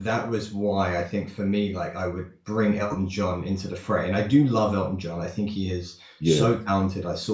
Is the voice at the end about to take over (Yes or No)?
No